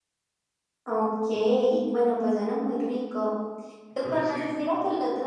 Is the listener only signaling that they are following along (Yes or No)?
Yes